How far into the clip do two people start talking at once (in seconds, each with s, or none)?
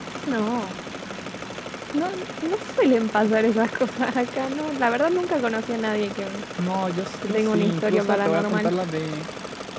7.3 s